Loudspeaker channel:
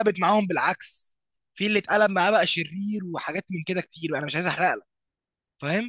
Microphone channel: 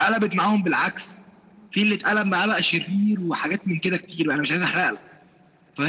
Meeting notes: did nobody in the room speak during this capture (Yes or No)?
Yes